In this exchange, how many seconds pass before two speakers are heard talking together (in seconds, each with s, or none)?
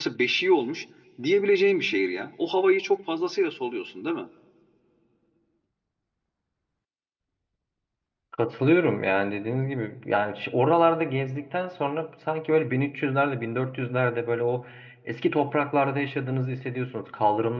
none